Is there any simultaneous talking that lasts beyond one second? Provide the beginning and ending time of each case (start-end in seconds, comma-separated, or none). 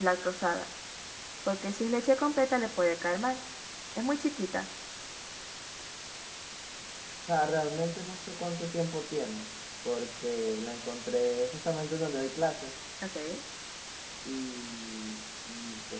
none